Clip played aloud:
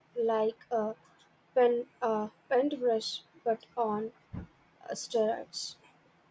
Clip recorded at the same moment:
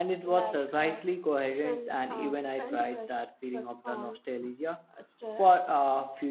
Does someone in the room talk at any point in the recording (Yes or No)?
Yes